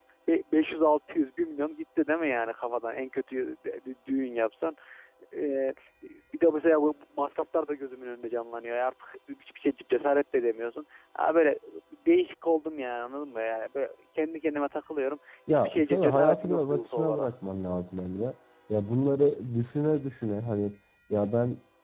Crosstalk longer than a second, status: present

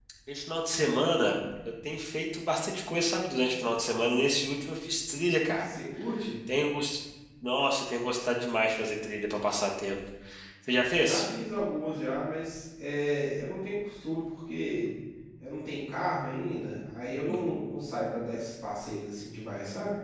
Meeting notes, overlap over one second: none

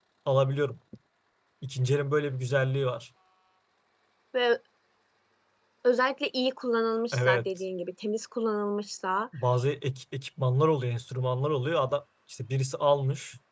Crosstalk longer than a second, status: none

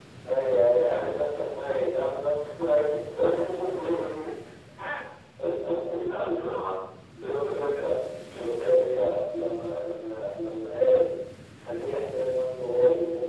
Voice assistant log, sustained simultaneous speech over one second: present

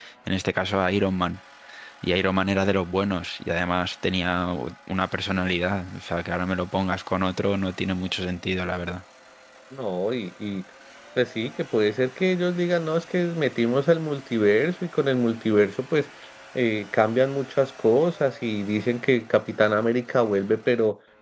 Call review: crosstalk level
none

